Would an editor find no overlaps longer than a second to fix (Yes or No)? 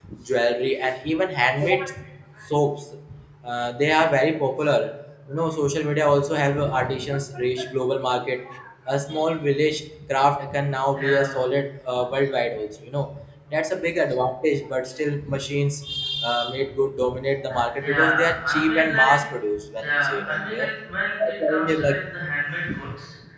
No